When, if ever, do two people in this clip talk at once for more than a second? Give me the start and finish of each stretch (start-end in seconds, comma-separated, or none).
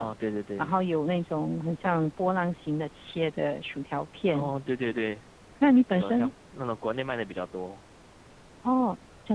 none